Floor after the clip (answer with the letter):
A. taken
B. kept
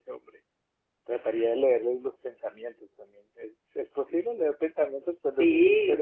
A